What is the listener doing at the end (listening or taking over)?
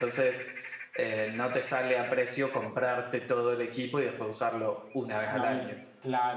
taking over